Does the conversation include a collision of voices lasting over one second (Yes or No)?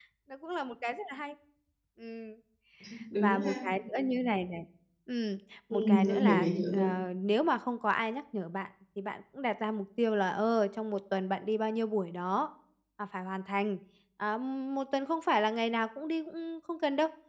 Yes